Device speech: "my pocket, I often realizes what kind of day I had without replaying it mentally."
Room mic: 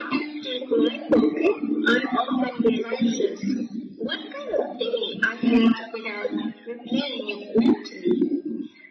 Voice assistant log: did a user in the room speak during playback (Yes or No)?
No